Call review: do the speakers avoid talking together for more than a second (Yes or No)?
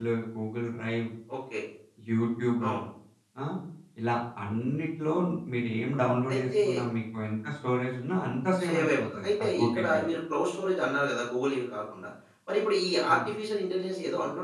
No